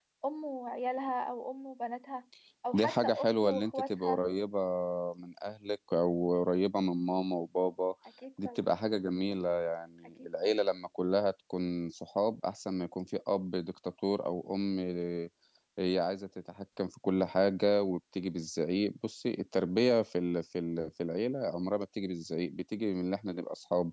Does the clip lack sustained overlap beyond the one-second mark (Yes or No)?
No